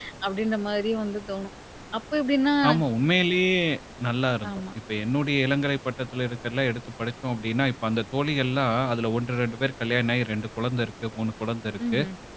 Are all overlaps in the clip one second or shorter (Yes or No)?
Yes